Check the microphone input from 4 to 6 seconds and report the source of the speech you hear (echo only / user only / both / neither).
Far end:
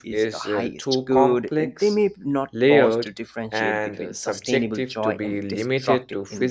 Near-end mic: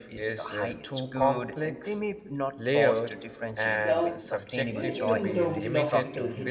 both